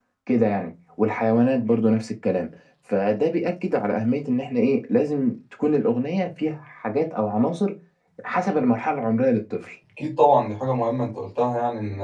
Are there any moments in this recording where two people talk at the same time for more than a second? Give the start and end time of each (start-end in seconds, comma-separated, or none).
none